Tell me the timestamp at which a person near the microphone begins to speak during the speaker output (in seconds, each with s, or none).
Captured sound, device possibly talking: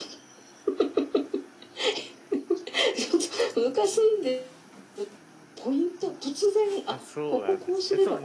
6.9 s